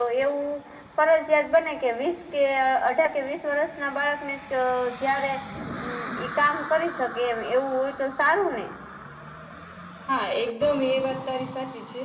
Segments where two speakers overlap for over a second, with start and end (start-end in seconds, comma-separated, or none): none